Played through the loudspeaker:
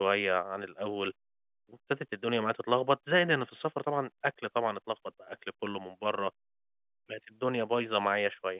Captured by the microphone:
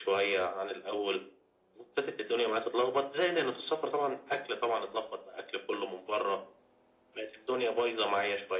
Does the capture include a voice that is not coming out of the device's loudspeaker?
No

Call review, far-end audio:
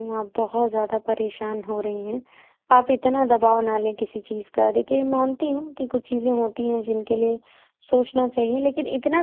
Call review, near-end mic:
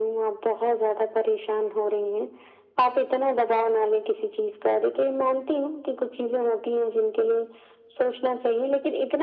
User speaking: No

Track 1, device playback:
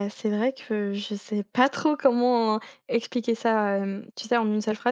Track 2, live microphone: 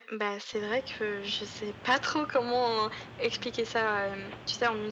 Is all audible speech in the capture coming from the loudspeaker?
Yes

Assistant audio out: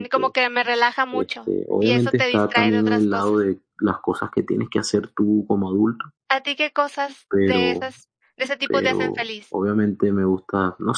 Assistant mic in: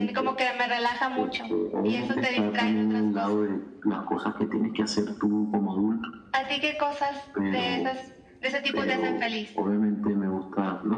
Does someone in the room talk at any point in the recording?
No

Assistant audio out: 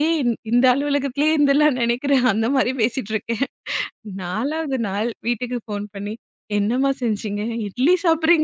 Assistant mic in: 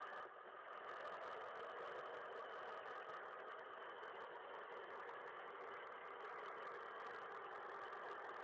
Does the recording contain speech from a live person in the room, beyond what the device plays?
No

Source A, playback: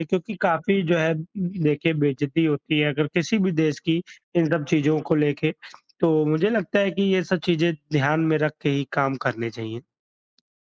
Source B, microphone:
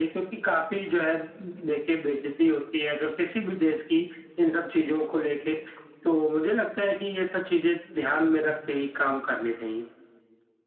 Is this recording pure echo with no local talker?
No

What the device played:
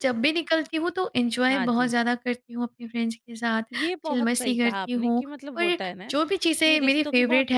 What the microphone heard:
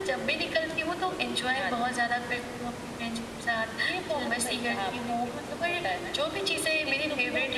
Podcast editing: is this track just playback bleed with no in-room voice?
Yes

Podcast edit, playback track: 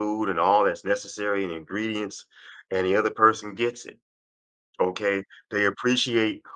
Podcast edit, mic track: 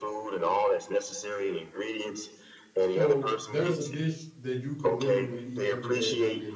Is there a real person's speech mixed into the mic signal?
Yes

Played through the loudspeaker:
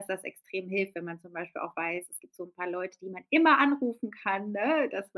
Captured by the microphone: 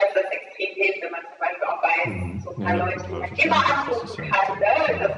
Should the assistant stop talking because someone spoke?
Yes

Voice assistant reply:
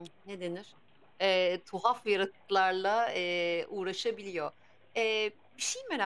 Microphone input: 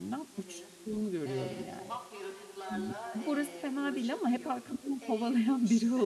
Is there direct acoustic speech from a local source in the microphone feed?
Yes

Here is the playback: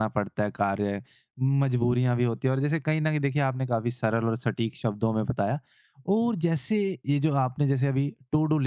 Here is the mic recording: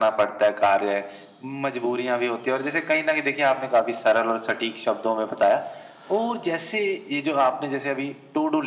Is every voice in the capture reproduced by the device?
Yes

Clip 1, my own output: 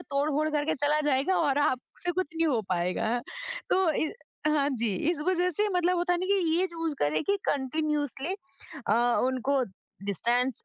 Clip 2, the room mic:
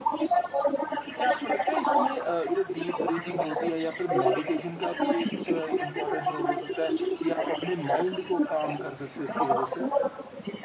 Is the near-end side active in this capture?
Yes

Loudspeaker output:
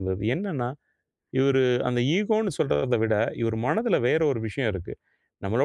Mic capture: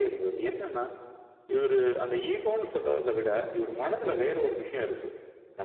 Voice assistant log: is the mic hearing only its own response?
Yes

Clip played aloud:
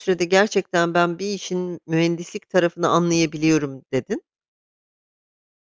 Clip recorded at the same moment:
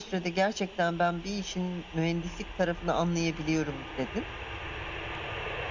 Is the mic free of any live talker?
Yes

